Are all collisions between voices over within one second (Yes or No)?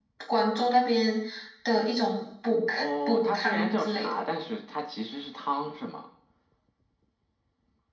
No